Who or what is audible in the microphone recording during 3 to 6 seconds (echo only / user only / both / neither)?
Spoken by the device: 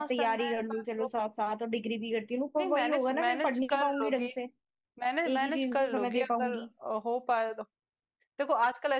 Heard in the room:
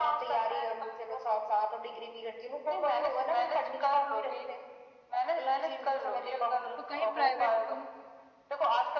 echo only